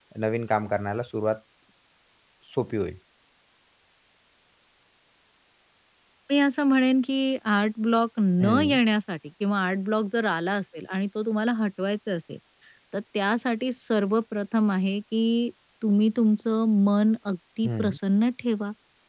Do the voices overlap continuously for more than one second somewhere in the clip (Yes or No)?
No